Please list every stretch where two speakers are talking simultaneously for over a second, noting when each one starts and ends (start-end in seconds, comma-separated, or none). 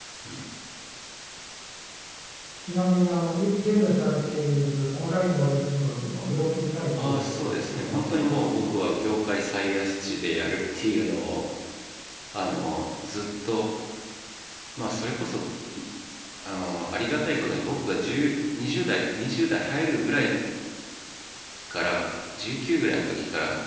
7.0-8.7